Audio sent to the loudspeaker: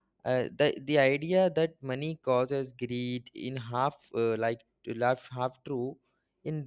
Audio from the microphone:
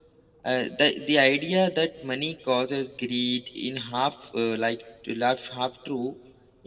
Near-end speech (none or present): none